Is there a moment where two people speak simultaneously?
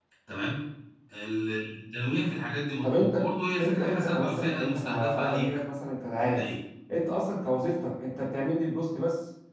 Yes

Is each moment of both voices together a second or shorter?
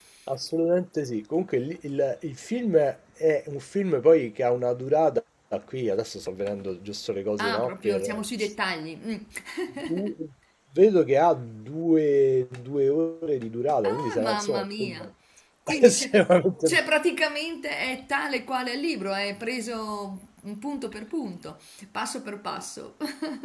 No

